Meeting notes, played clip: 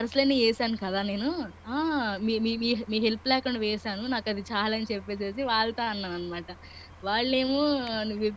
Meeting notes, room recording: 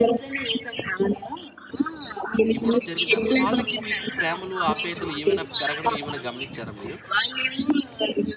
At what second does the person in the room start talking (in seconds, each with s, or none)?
2.6 s